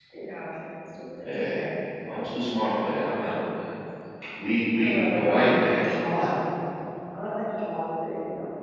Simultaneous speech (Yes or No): Yes